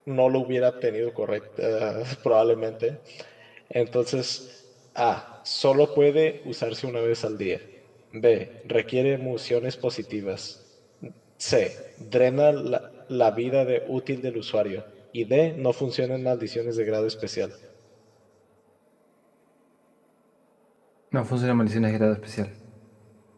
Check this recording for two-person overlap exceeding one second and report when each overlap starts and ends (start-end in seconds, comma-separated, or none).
none